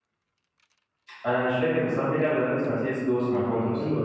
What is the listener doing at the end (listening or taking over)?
taking over